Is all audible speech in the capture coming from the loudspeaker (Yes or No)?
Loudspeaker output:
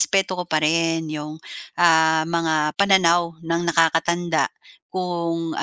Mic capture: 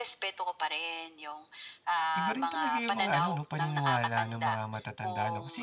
No